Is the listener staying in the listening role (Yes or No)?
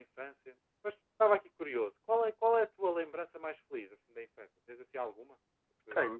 No